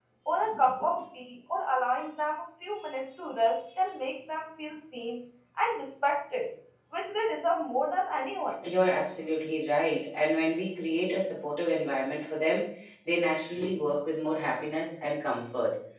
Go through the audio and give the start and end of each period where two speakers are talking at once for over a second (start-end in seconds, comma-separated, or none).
none